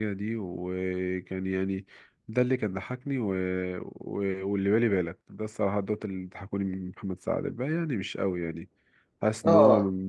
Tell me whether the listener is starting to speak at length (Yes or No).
No